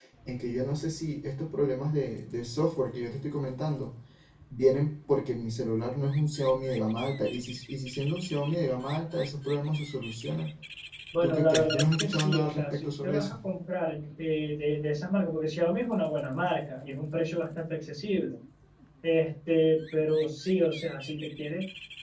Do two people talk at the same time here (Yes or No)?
Yes